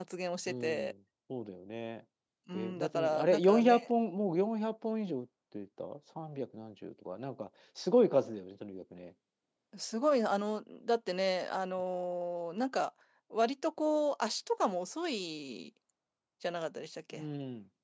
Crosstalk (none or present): present